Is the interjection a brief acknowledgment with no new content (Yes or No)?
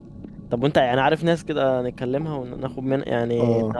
No